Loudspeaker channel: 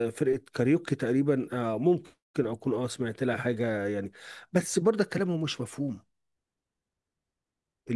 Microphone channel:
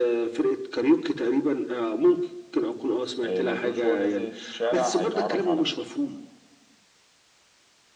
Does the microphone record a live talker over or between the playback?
Yes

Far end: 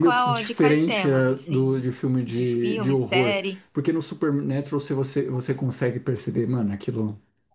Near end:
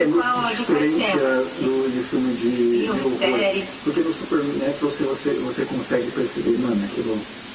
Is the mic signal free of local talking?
Yes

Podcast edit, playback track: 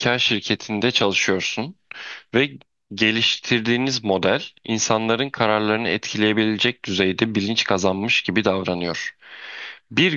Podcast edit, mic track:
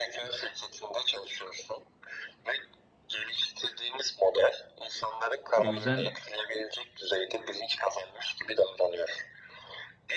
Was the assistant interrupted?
Yes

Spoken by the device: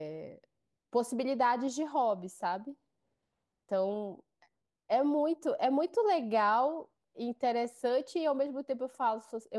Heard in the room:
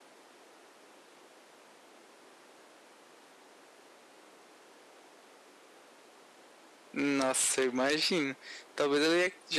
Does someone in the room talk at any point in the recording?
Yes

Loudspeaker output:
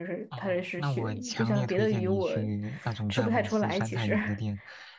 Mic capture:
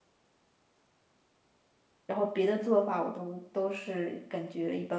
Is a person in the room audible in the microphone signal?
Yes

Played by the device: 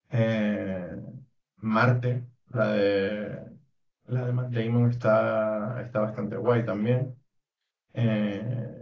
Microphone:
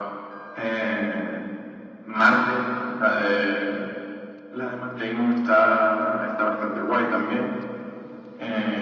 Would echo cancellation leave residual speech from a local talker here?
No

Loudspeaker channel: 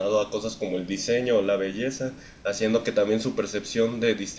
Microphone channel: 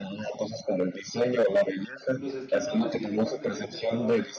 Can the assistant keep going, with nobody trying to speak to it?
No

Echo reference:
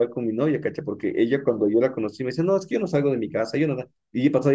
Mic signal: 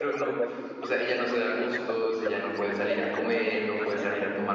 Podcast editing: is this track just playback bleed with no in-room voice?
No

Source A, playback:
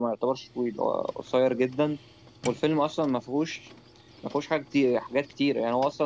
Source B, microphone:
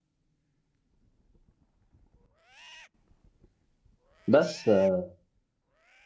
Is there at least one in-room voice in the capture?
Yes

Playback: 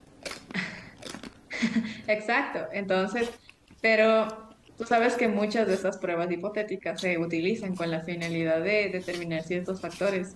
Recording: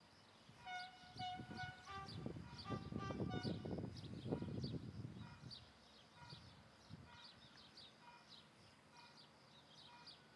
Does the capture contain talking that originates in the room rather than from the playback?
No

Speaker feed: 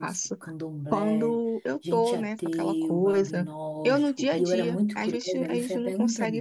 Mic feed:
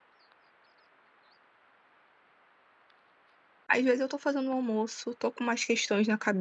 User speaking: Yes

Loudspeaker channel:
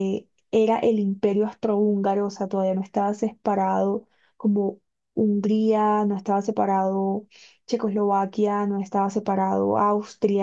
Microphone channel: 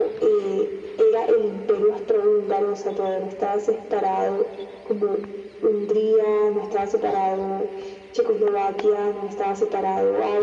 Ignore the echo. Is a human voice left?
No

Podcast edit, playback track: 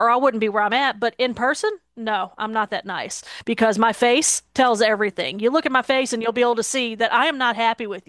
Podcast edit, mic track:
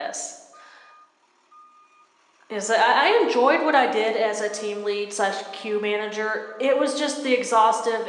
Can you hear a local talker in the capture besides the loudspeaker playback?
Yes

